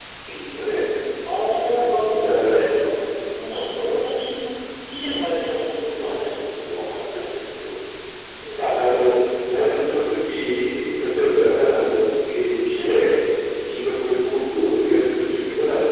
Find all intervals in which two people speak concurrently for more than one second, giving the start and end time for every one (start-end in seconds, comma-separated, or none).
1.3-3.0